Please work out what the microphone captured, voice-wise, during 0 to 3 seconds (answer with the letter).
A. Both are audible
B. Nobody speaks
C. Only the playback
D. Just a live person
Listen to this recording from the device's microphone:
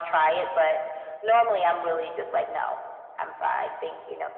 C